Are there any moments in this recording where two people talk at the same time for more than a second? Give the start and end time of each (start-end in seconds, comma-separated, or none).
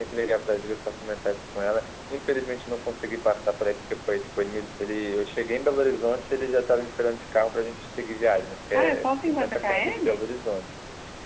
8.7-10.2